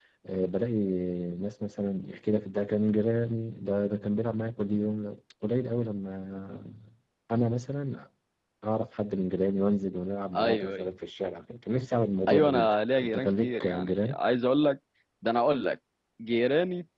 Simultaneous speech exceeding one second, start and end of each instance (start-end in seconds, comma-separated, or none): 12.3-14.2